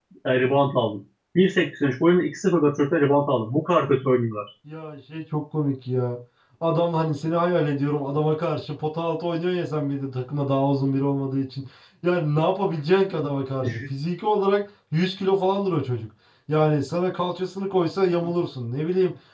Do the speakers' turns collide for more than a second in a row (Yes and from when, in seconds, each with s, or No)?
No